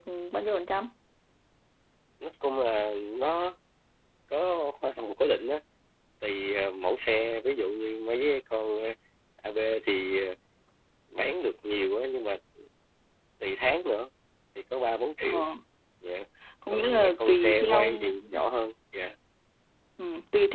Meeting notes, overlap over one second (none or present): present